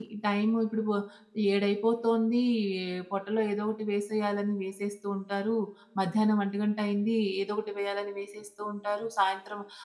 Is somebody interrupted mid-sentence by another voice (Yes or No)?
No